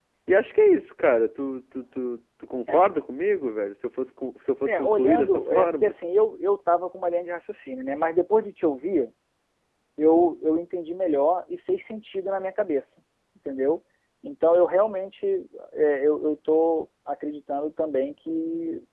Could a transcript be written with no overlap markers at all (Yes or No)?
No